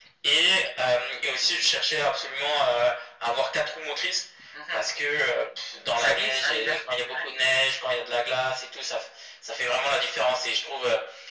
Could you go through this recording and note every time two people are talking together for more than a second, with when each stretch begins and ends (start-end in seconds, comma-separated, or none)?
6.0-7.3